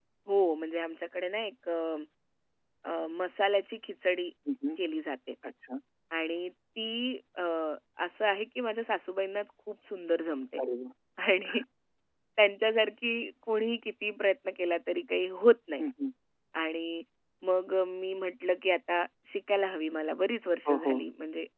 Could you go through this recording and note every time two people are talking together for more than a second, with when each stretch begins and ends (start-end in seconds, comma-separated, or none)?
none